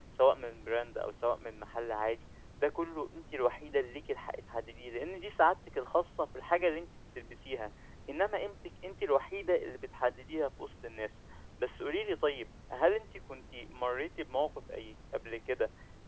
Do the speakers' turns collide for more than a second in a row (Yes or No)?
No